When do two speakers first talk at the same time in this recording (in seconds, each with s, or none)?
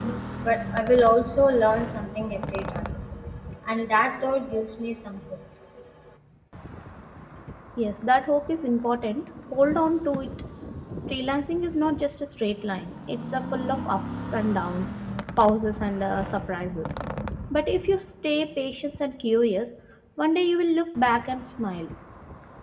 none